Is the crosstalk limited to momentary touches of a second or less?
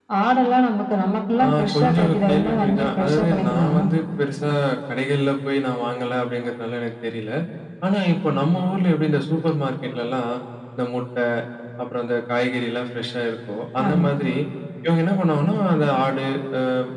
No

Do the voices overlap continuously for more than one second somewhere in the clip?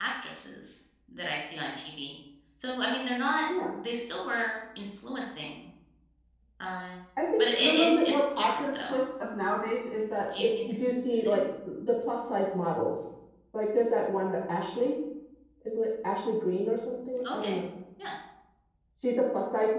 Yes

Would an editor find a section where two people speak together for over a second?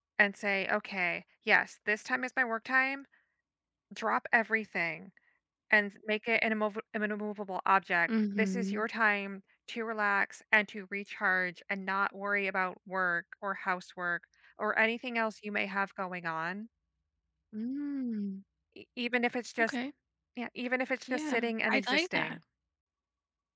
Yes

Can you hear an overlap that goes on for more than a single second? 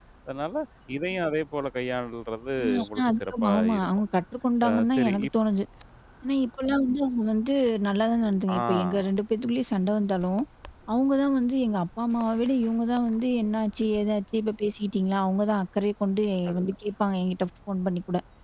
Yes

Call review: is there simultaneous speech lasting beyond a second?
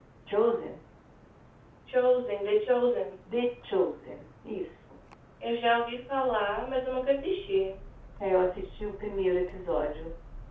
No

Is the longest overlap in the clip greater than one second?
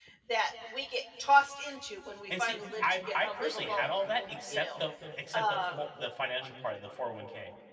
Yes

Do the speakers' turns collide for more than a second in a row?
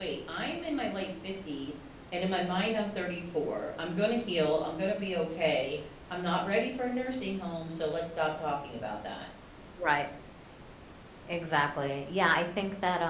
No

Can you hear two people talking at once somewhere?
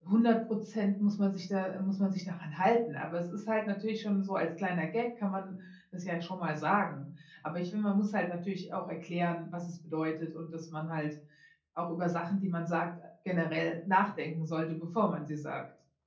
No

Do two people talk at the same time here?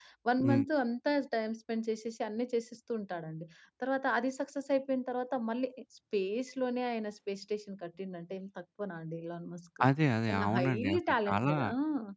Yes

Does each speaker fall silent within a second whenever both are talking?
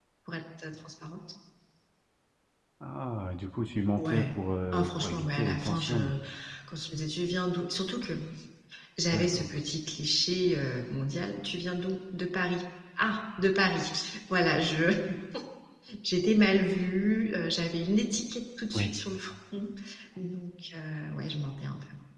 No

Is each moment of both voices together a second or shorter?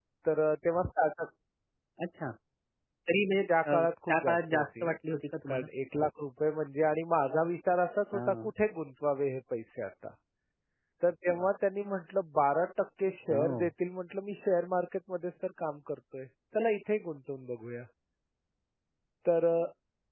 No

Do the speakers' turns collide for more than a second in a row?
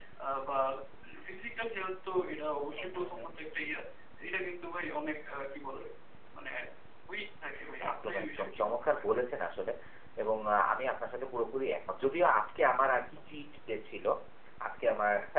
Yes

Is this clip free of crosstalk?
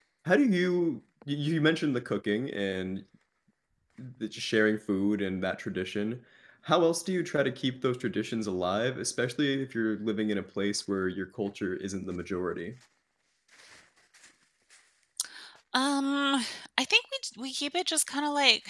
Yes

